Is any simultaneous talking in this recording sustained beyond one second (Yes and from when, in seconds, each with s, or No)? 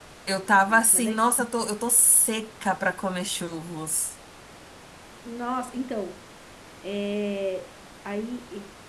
No